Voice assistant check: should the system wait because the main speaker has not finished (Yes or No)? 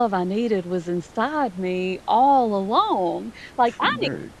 Yes